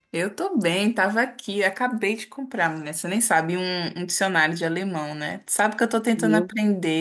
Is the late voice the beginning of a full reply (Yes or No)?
No